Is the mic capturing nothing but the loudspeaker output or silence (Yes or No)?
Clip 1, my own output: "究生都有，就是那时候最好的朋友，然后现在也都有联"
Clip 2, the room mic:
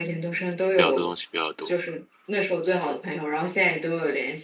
No